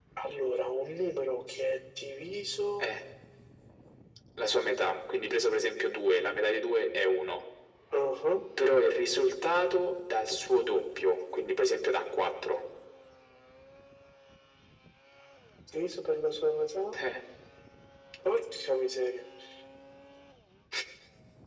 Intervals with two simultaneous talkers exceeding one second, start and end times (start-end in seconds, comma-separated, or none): none